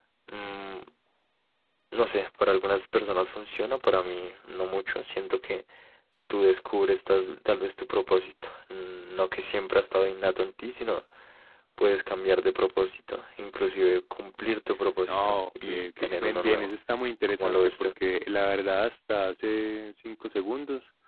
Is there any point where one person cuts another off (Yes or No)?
Yes